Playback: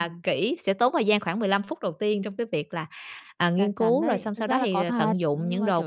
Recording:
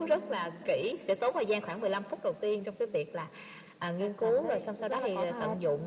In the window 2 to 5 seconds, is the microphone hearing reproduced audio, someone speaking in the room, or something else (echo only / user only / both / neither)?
echo only